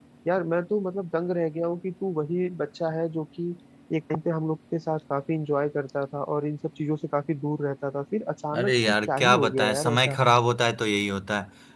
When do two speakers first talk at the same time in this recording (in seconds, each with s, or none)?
8.5 s